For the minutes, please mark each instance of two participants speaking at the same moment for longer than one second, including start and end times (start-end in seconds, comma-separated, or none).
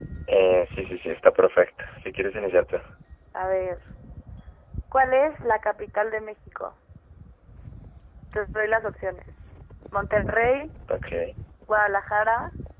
none